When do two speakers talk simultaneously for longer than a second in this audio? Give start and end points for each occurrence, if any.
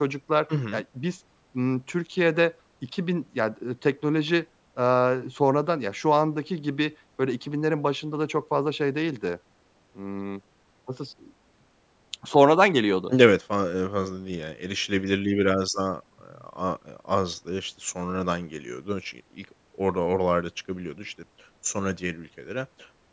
none

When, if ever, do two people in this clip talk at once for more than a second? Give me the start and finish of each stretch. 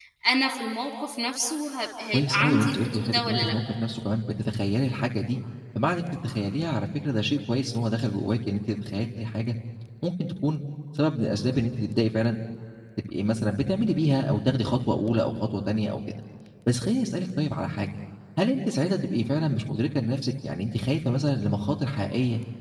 2.1-3.5

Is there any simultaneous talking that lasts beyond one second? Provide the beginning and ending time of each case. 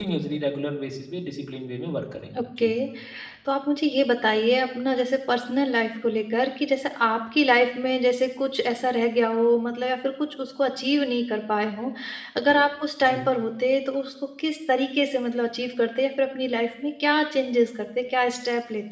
none

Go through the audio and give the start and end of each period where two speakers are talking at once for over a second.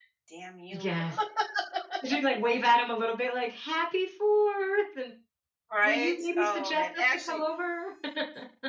5.8-7.4

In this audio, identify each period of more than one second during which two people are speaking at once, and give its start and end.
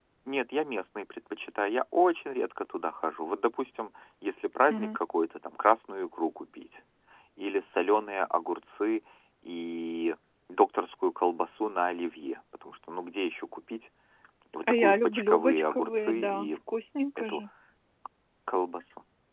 14.7-16.5

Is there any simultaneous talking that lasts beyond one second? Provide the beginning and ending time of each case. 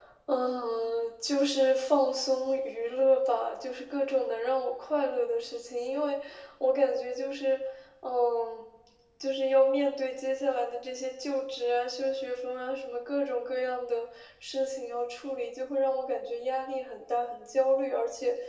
none

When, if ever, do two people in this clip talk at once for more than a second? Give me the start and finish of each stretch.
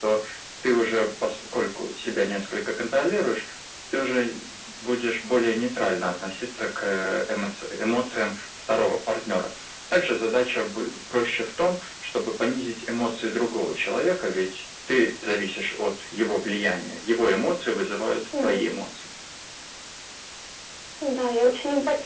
none

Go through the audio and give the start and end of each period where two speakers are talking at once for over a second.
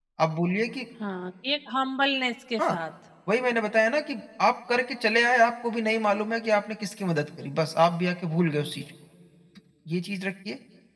none

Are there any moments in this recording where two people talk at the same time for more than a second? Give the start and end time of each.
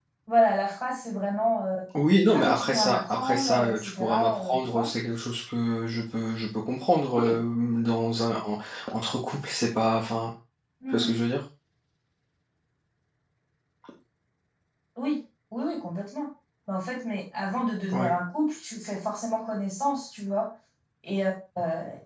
2.3-4.9

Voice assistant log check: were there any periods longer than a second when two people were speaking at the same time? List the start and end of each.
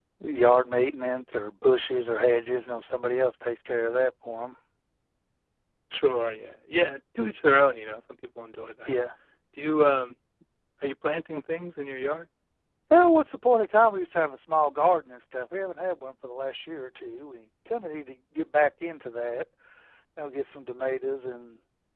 none

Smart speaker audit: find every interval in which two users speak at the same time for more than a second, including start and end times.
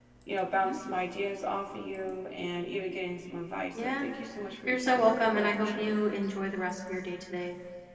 4.7-5.9

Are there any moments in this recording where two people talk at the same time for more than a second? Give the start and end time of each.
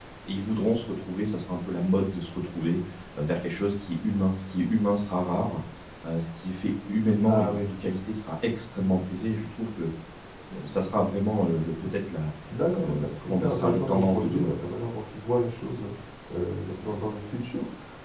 12.8-14.5

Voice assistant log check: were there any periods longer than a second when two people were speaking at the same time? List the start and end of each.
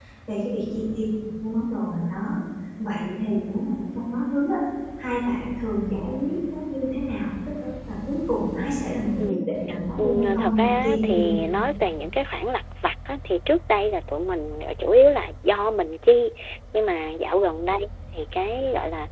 10.0-11.3

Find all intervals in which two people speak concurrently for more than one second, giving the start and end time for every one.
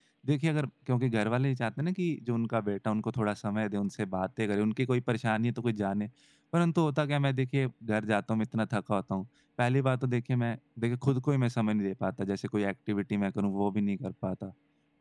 none

